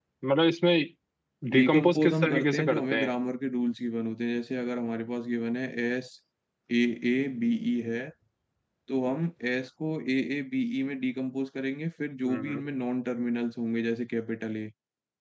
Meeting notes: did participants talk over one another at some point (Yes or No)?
Yes